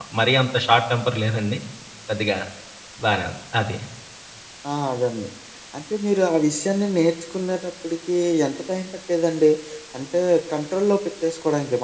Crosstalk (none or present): none